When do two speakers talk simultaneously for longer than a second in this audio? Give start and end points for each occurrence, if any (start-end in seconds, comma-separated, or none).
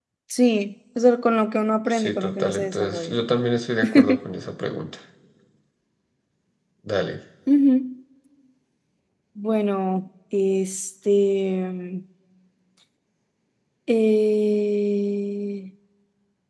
1.9-3.1